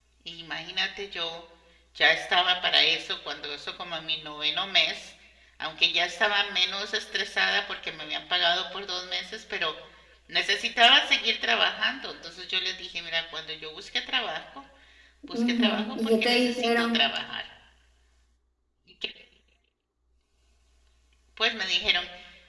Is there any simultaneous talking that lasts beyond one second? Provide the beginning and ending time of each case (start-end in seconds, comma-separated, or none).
15.3-17.0